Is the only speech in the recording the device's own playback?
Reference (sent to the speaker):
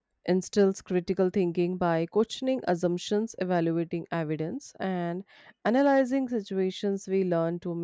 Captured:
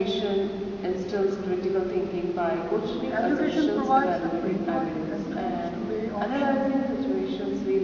No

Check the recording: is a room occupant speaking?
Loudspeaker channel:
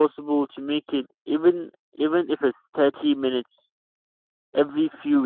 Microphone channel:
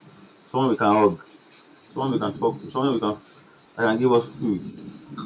Yes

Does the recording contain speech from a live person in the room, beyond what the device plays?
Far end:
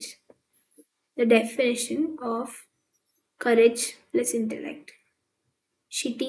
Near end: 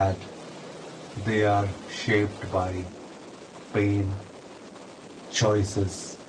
Yes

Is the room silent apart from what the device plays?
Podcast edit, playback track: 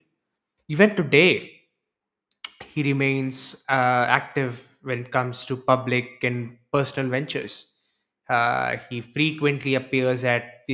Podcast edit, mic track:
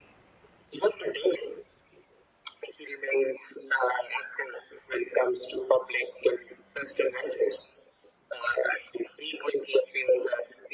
Yes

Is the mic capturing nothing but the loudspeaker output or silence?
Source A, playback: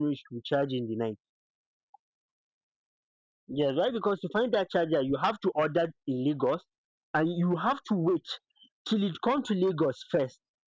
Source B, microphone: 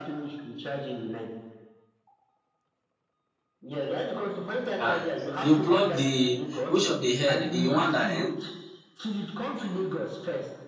No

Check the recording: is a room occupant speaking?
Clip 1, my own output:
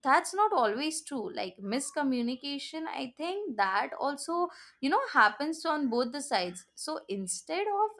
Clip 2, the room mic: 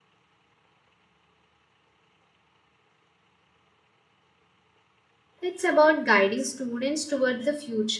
Yes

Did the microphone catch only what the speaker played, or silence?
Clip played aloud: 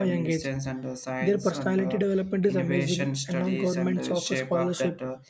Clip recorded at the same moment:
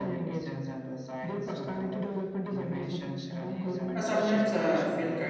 No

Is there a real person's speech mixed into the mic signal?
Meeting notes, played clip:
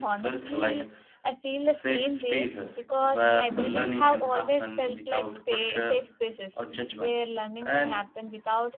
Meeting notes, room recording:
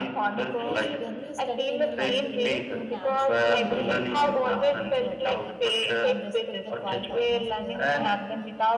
Yes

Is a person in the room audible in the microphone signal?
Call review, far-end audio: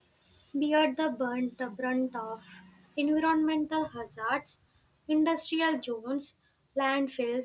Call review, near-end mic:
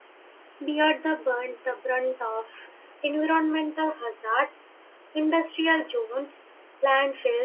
No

